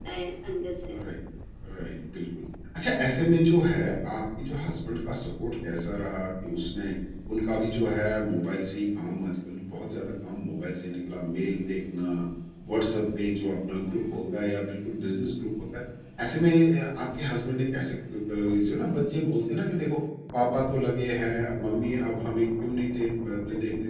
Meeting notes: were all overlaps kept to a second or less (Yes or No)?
Yes